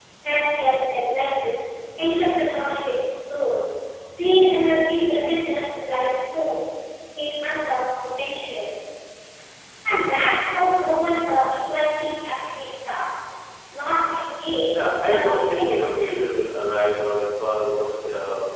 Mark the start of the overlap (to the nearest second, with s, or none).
15 s